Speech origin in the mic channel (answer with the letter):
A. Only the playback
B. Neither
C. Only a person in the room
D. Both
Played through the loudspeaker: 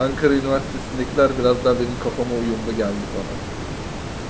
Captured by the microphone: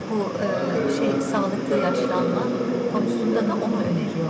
D